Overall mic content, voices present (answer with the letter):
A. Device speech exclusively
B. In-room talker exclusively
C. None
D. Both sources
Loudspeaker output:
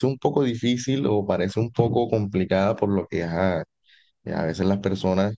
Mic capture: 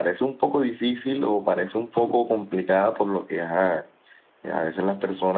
A